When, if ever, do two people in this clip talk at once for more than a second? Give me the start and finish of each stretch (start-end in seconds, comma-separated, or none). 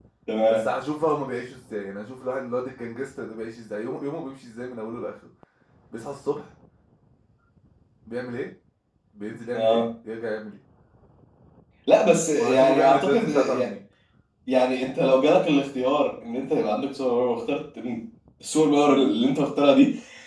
12.4-13.7